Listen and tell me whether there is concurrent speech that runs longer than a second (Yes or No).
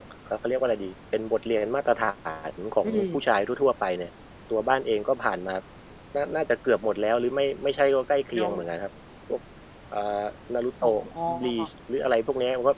No